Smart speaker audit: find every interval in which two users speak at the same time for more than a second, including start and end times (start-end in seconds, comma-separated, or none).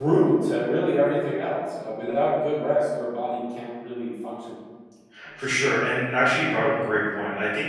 none